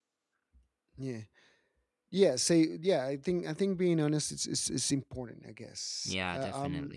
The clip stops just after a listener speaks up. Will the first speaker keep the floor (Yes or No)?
Yes